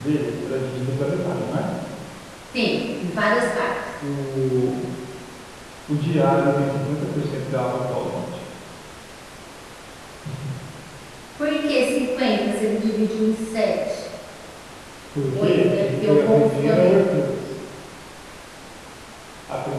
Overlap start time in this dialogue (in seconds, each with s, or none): 15.3 s